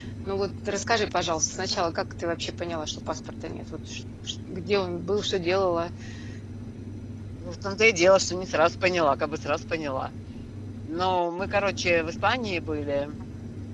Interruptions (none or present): none